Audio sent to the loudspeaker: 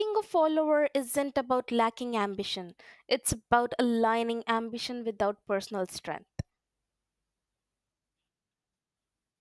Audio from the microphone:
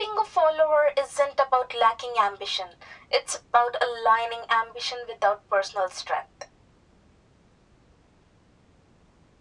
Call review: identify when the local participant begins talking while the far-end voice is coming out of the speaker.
none

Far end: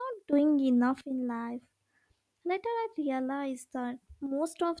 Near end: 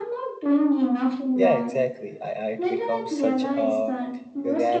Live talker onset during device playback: 1.3 s

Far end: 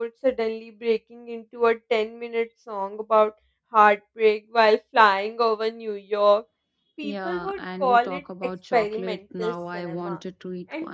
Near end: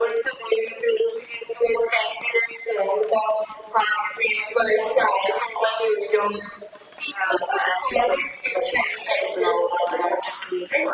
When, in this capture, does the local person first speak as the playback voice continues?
none

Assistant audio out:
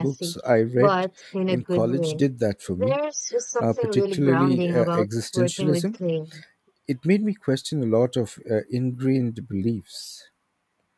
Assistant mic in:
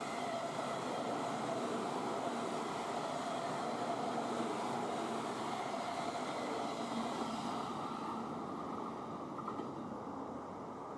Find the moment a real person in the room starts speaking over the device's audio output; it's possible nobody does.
none

